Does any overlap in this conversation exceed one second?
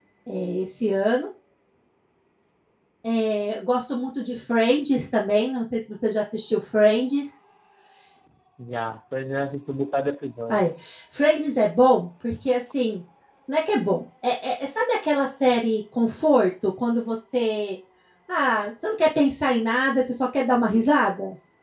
No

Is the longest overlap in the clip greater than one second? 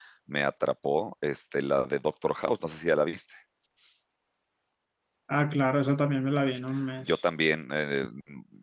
No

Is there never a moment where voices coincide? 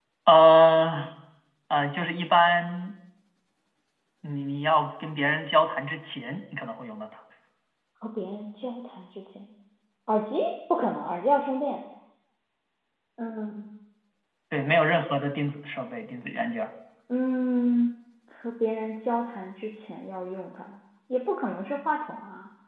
Yes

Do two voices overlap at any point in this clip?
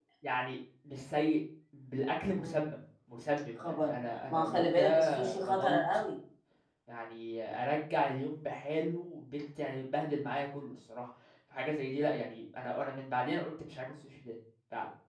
Yes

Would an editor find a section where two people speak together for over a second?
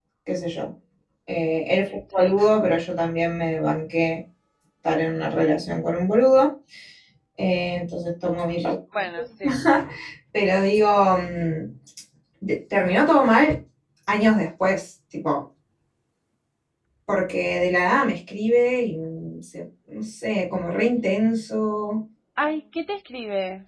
No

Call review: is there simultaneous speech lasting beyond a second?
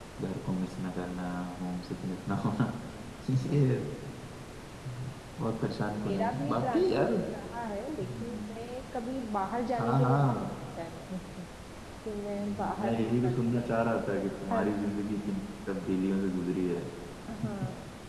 Yes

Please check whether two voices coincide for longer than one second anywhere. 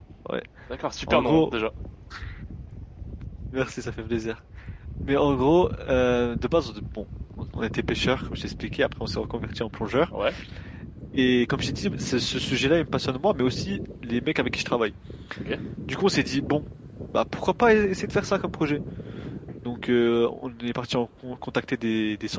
No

